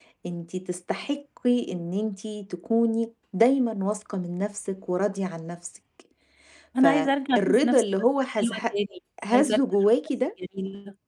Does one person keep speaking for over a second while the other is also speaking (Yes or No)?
Yes